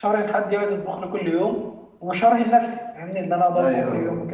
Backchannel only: No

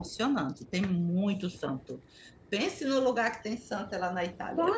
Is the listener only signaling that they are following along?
No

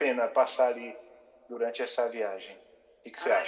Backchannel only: No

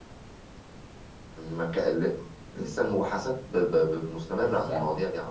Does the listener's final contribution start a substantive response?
Yes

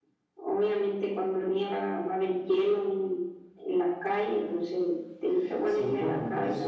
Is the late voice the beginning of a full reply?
Yes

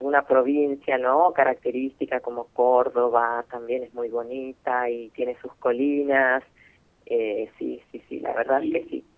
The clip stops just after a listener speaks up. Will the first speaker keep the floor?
No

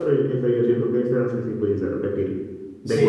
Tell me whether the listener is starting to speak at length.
Yes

